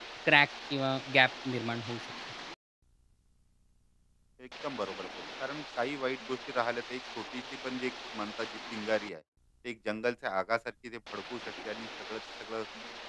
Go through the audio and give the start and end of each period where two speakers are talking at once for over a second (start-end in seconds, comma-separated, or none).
none